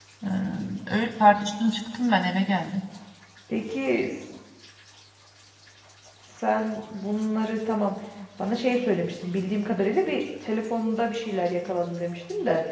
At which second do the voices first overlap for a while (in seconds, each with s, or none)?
none